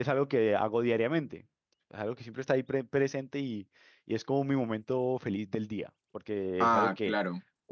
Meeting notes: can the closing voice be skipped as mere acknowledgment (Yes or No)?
Yes